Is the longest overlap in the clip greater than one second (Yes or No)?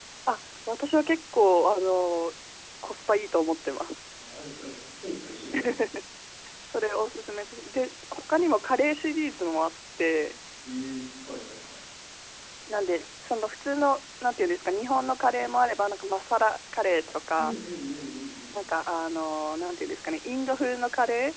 No